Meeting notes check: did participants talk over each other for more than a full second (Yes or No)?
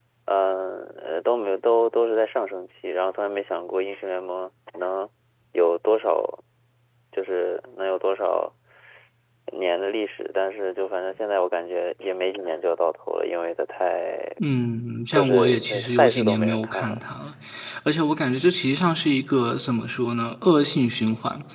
Yes